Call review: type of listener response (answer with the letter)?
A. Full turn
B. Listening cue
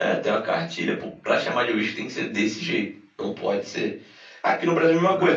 B